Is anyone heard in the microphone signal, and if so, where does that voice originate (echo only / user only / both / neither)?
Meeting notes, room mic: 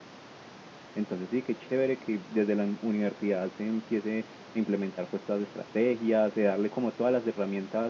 user only